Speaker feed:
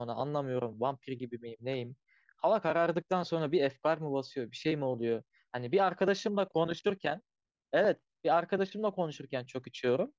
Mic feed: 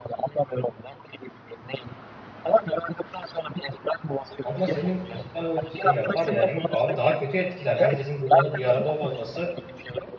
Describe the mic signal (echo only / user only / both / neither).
both